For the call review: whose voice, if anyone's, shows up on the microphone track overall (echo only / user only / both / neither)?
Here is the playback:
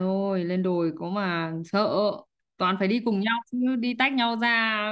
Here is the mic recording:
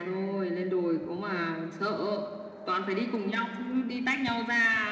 echo only